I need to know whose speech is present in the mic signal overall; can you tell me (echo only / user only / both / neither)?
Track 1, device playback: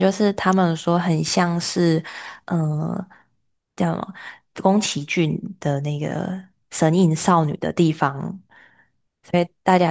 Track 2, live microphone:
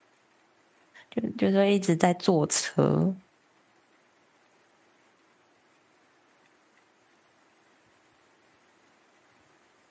user only